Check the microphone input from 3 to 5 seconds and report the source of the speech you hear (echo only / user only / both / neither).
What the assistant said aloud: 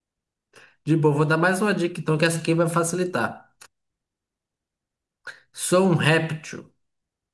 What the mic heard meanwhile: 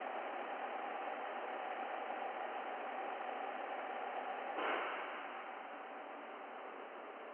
neither